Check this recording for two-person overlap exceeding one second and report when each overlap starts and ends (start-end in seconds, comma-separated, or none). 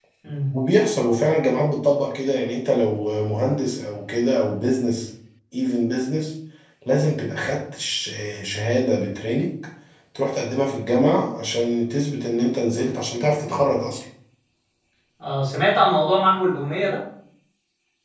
none